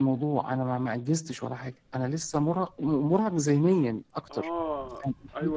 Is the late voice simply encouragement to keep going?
No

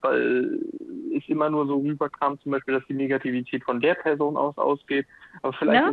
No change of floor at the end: Yes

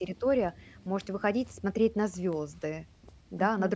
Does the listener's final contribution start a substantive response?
Yes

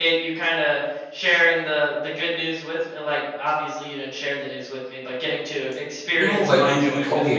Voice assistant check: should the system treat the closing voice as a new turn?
Yes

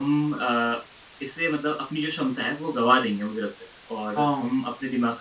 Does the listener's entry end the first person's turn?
No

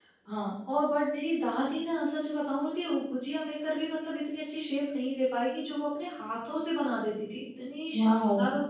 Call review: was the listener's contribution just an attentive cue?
No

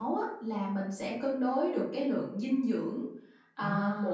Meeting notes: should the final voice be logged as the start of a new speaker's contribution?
No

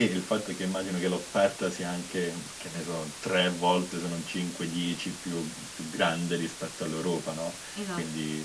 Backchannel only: Yes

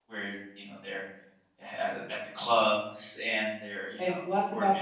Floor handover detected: Yes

